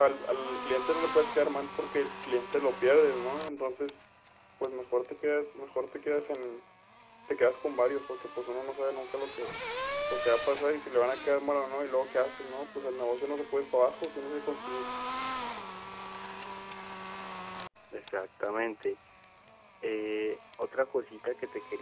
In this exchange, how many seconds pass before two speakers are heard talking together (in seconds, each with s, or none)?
none